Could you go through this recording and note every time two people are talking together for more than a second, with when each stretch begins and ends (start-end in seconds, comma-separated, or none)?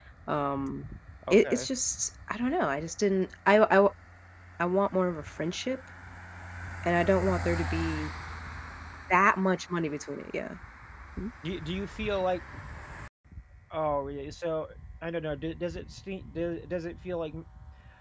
none